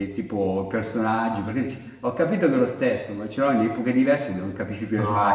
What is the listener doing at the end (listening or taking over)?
taking over